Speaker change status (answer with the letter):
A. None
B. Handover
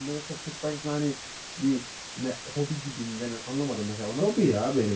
B